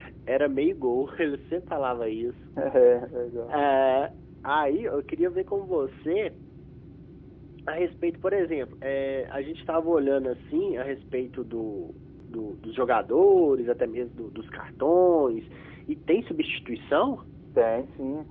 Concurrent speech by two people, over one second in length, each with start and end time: none

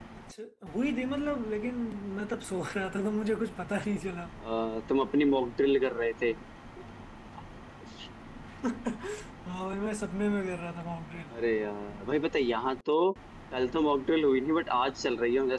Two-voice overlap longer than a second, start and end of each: none

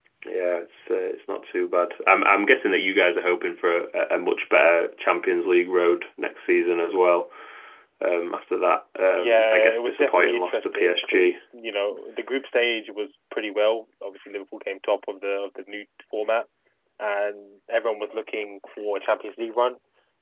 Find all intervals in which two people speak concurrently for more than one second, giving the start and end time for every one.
9.2-11.4

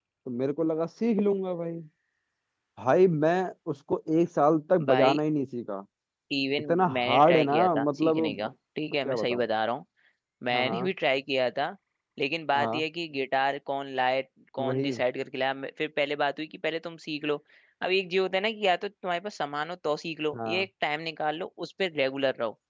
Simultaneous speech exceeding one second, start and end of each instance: 6.6-8.3

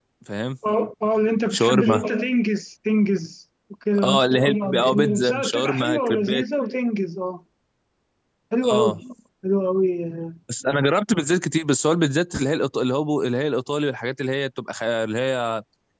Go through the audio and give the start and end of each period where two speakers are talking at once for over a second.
4.0-6.4

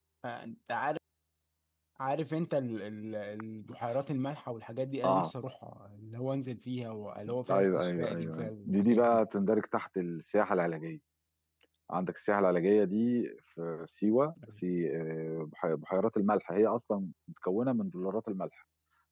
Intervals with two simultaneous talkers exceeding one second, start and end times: 7.5-9.2

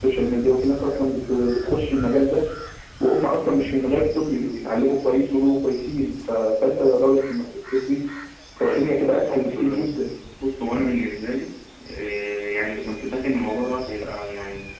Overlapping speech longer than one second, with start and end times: 8.6-9.9

